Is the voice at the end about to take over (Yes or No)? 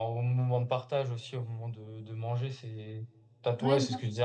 No